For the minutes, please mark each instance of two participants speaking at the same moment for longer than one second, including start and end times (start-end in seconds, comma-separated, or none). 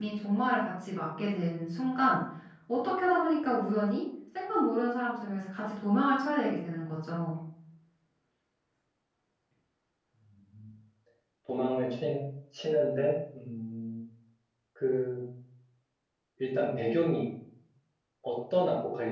none